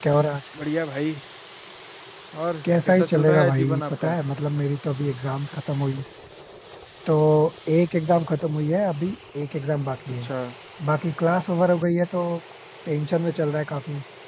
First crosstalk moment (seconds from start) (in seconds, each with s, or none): 2.9 s